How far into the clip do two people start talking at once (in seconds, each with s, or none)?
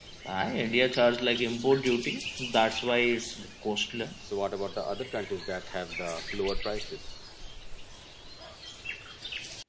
none